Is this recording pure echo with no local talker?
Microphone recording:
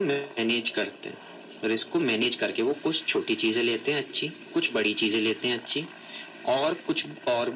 Yes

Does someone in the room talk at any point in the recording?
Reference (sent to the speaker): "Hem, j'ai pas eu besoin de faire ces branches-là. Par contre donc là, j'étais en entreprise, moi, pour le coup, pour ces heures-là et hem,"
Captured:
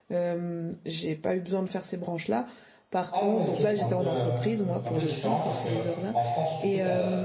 Yes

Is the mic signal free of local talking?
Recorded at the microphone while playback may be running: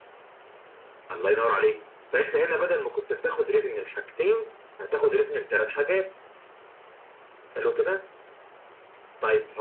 Yes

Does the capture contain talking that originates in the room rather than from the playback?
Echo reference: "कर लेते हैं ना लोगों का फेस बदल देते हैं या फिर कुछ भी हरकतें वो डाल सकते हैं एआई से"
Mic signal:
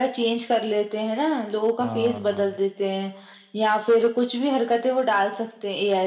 Yes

